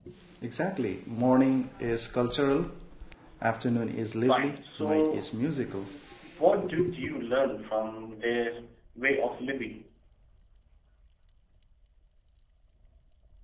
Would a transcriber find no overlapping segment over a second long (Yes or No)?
No